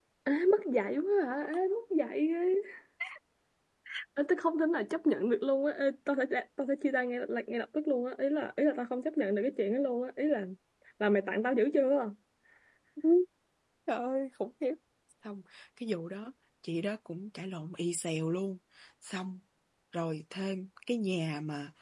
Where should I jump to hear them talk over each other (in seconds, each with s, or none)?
none